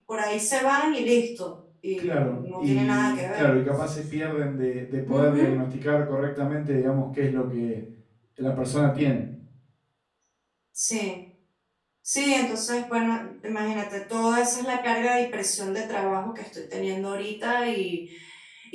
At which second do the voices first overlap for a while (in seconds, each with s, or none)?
2.0 s